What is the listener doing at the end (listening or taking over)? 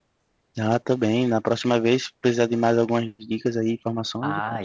taking over